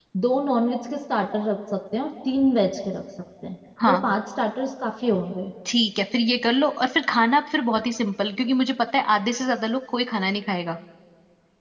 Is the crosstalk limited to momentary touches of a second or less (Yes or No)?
Yes